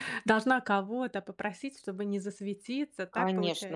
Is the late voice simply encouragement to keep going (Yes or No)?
No